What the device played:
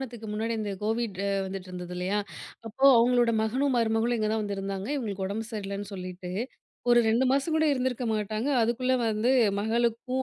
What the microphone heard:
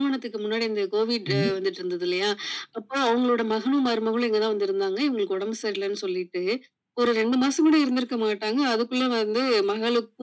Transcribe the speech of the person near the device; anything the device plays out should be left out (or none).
கண்டிப்பா.